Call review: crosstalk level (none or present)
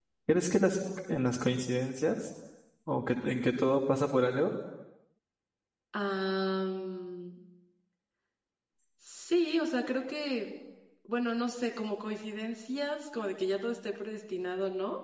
none